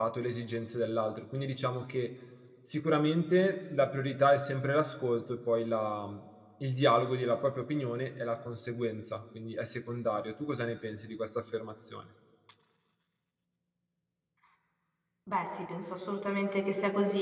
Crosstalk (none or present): none